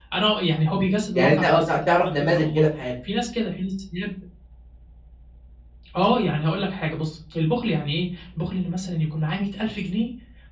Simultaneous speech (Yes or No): Yes